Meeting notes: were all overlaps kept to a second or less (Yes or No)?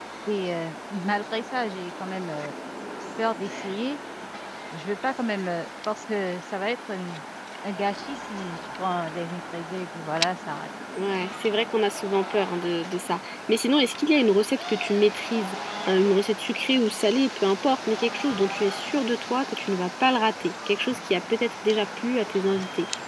Yes